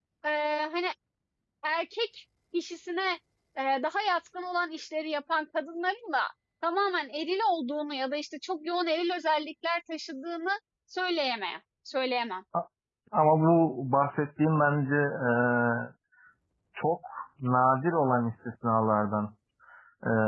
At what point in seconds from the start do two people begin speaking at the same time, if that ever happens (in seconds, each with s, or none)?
none